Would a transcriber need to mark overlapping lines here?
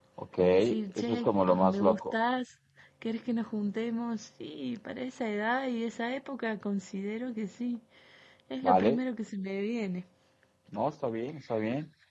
Yes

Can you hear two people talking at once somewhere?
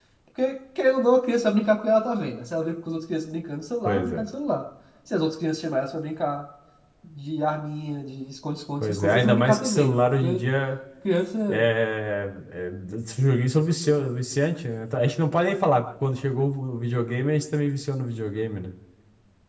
Yes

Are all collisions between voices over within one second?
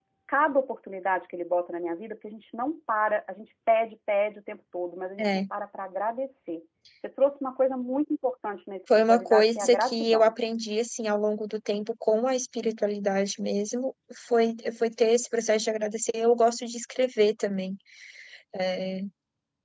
No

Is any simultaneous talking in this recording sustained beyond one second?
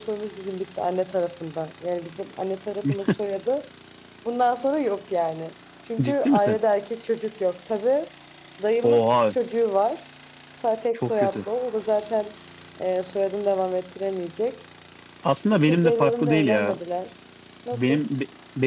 Yes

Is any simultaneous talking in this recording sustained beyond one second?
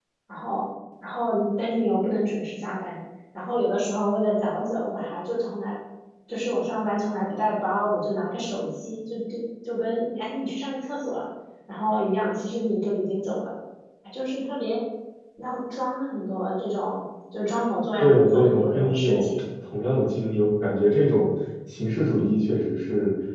Yes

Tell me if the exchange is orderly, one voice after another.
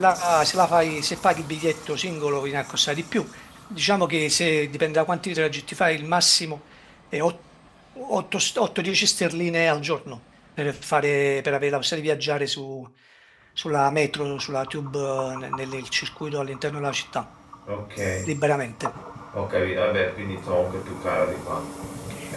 Yes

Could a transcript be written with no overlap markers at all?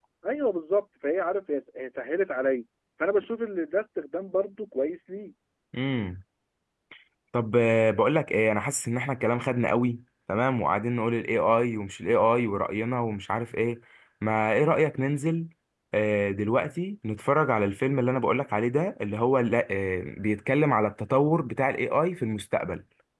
Yes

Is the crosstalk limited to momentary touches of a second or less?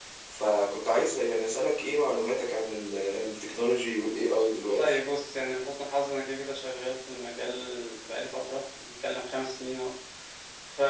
Yes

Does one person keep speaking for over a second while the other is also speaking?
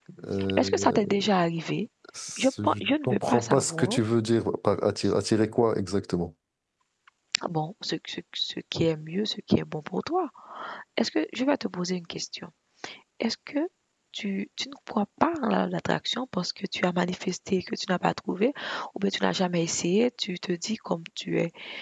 Yes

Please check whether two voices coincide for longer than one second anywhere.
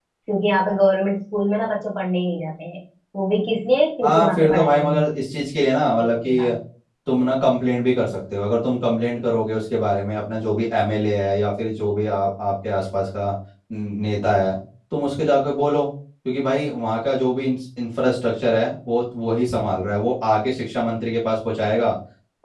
Yes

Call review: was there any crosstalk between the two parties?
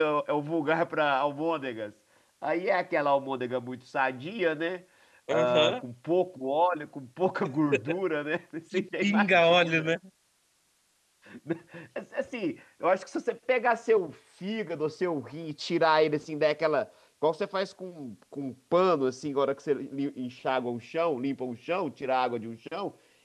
Yes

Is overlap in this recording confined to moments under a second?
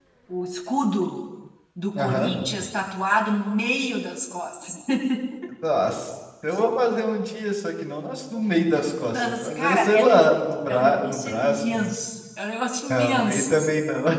No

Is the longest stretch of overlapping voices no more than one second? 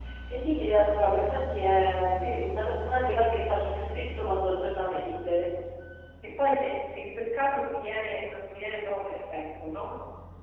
Yes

